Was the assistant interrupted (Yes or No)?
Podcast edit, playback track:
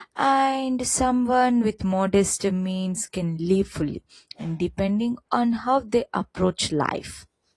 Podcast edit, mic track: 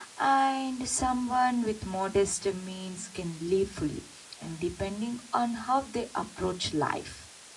No